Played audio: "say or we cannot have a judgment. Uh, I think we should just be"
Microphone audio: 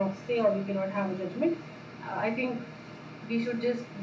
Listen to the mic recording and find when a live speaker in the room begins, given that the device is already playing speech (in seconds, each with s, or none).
none